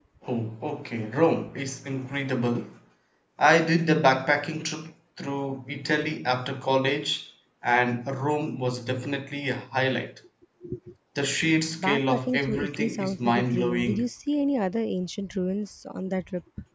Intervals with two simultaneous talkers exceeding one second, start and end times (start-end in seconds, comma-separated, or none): 11.8-14.1